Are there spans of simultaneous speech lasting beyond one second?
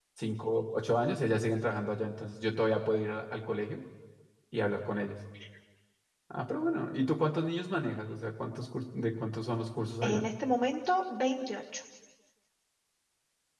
No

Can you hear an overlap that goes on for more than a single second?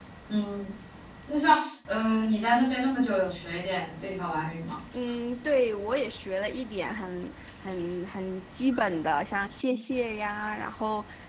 No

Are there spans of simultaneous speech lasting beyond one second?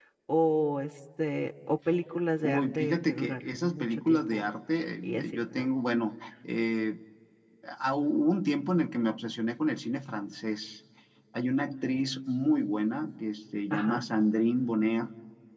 Yes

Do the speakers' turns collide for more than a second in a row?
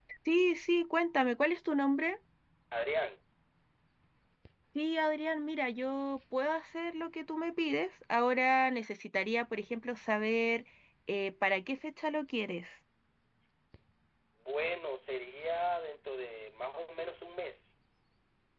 No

